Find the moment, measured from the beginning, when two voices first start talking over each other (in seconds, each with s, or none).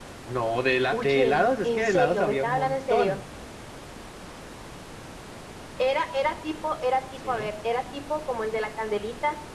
0.9 s